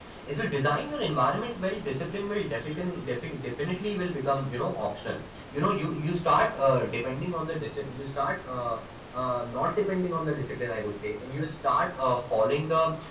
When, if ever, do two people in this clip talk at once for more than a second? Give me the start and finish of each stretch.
none

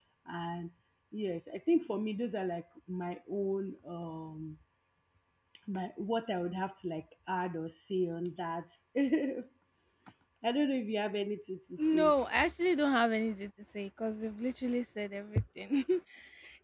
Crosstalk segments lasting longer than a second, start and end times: none

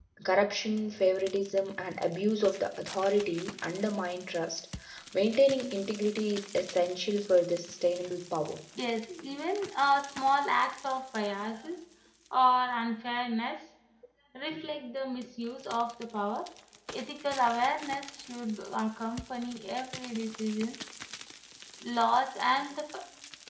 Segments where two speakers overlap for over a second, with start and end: none

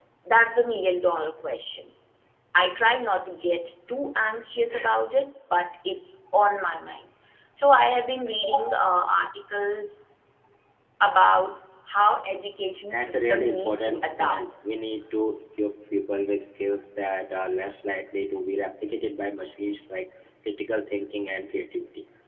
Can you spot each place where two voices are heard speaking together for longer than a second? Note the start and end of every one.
12.9-14.4

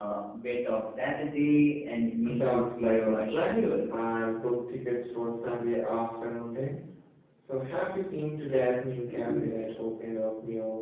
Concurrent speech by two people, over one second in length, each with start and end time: 2.3-3.6

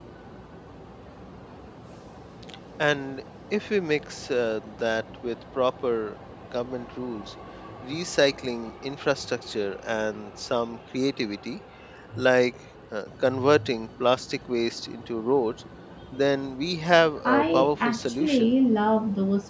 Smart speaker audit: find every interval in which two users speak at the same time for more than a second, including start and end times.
17.2-18.5

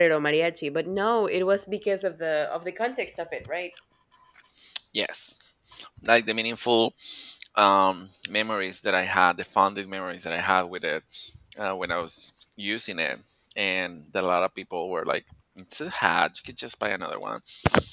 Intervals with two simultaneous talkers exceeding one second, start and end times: none

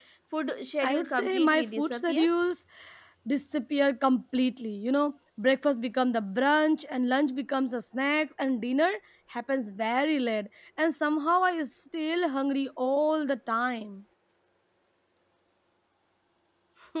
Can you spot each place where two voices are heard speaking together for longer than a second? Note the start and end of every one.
0.8-2.2

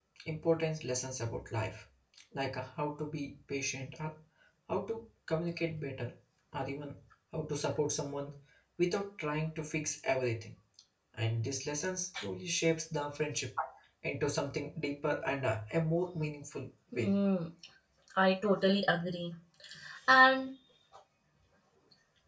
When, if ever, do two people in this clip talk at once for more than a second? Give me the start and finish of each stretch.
none

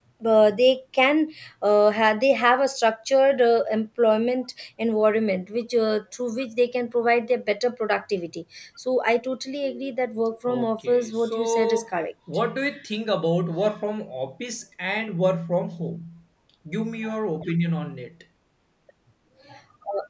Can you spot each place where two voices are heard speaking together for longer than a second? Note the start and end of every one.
10.5-11.8

